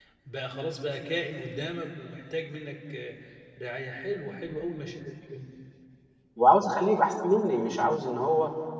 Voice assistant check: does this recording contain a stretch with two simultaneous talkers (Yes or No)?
No